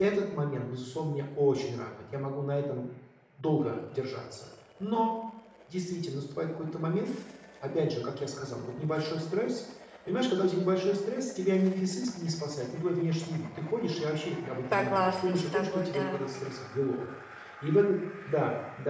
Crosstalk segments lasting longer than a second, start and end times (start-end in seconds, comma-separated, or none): 14.7-16.2